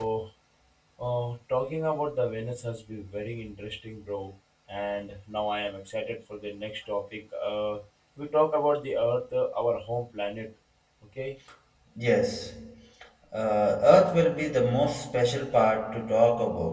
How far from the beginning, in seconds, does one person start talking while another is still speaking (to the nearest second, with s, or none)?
none